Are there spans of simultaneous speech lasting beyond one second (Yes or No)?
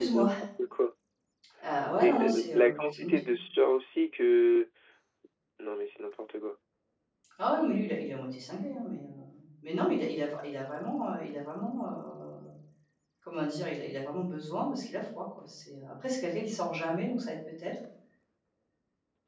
Yes